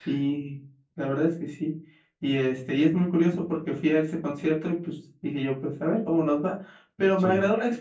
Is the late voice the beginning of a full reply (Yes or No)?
No